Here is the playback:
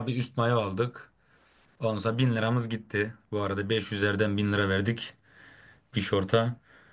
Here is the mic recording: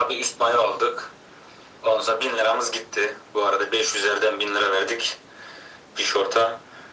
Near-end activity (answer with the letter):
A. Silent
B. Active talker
A